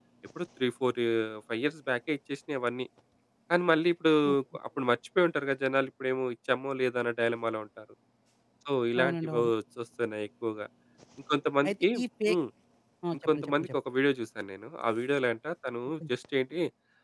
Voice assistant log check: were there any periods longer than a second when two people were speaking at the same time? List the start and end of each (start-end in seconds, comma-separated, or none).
none